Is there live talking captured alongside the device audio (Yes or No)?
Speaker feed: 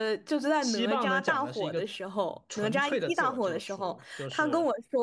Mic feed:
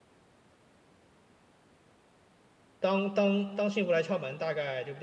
Yes